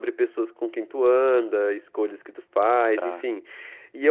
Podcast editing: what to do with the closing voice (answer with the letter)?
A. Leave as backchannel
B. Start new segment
A